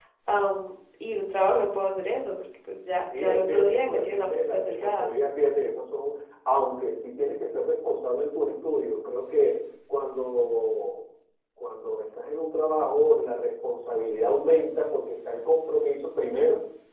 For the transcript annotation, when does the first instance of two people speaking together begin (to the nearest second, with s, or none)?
3 s